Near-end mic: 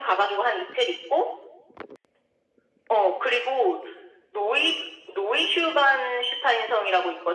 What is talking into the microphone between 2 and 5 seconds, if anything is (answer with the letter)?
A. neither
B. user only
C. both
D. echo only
D